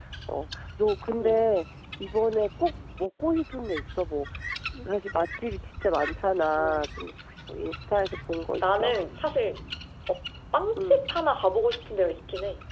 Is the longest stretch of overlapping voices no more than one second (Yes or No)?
Yes